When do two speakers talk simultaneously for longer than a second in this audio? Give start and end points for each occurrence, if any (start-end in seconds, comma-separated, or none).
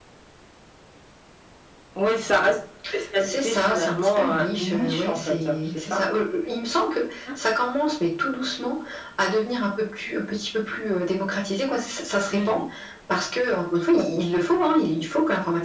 3.2-6.0